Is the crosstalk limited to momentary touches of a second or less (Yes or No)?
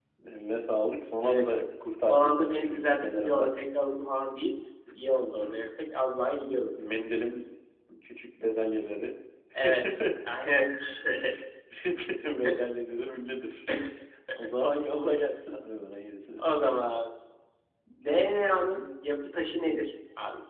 No